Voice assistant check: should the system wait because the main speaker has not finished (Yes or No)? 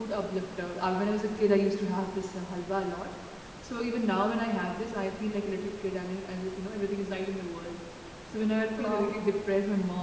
Yes